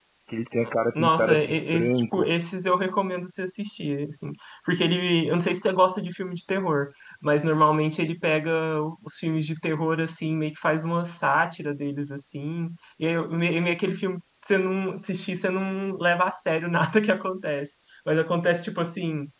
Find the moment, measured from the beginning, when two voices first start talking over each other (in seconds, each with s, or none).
1.0 s